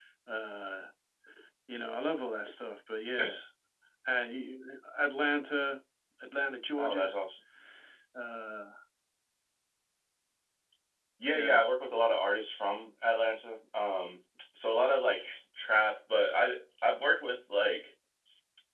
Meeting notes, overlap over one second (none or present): none